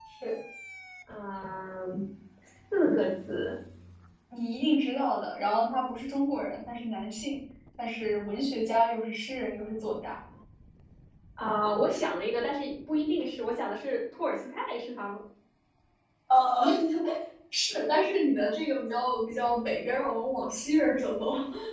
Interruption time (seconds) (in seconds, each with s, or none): none